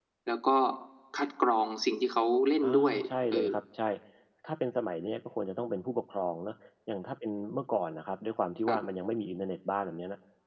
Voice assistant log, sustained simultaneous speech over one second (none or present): none